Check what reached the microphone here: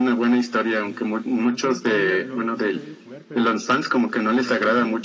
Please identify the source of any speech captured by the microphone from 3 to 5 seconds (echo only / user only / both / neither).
both